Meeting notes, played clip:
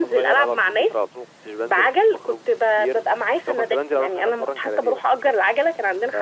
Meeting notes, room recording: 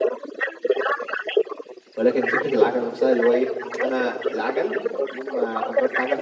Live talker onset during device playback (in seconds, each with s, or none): 2.0 s